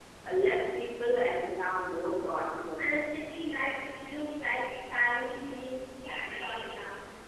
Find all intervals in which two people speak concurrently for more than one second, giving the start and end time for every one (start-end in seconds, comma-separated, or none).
none